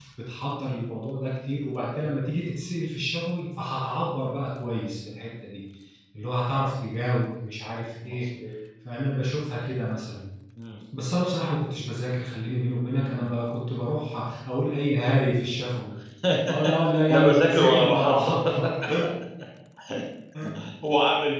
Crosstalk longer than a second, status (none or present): present